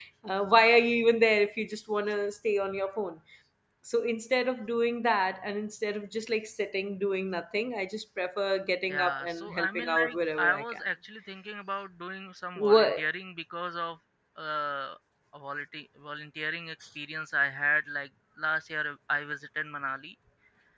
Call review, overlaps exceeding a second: present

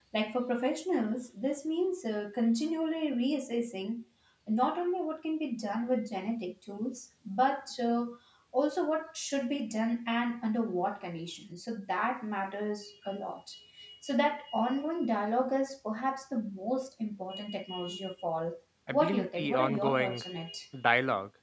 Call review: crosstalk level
present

